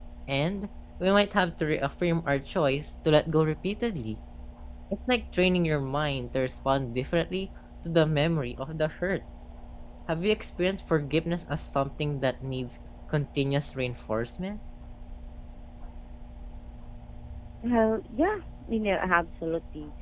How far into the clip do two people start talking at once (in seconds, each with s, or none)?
none